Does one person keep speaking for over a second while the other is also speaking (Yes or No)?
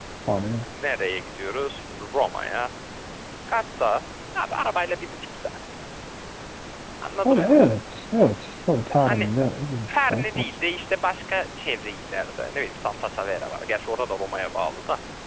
No